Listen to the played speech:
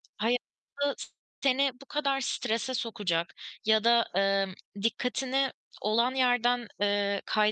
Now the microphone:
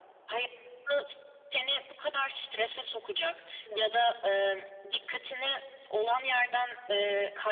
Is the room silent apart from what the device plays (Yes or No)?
No